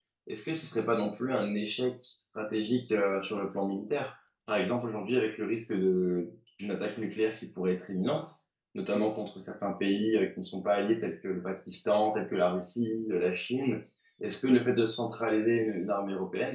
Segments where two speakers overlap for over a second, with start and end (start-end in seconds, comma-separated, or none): none